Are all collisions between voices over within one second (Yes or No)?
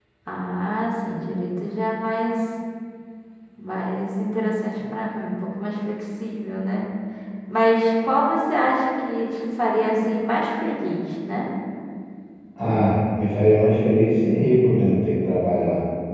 Yes